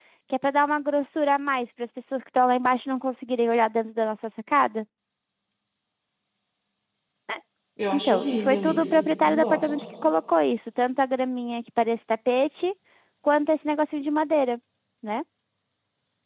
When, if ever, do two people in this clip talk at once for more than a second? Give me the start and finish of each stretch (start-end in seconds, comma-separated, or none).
7.9-9.7